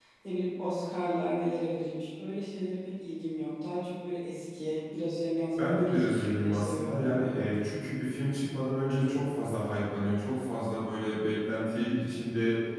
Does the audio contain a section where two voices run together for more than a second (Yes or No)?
Yes